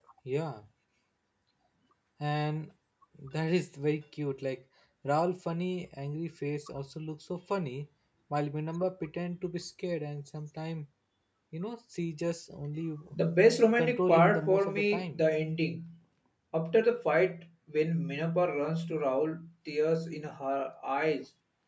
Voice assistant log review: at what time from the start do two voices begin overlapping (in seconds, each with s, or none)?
13.8 s